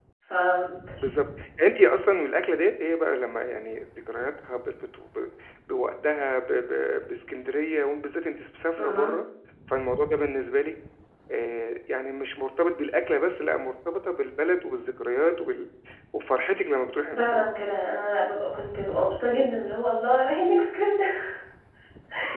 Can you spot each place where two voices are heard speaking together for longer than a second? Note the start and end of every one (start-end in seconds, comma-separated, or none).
none